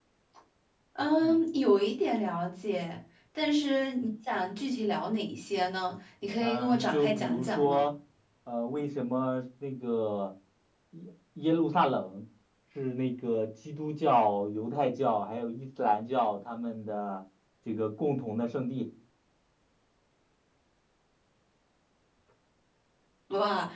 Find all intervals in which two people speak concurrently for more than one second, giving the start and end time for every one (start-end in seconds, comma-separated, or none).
6.4-7.9